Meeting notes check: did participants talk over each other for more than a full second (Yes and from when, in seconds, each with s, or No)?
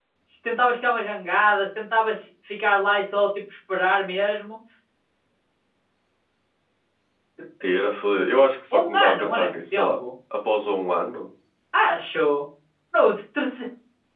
Yes, from 8.7 s